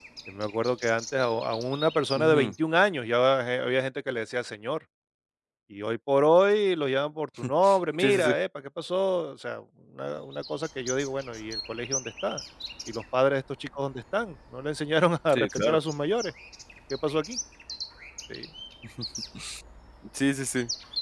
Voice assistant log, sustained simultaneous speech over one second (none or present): none